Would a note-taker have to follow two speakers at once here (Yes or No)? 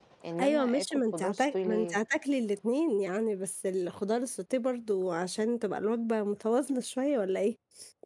Yes